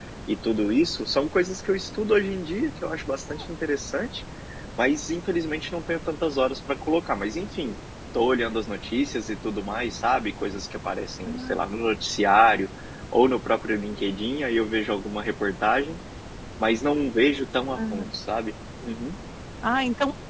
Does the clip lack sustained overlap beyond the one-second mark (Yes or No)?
Yes